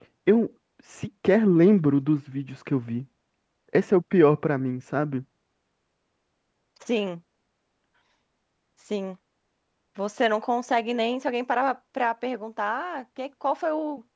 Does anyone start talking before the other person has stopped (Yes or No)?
No